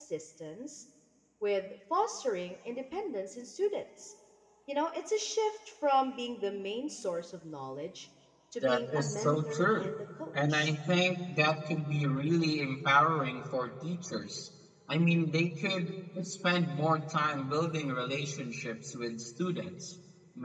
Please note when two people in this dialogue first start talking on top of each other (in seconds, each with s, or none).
8.6 s